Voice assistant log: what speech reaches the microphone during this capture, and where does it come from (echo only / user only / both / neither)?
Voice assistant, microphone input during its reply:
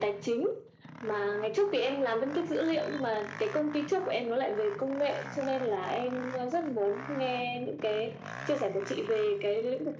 echo only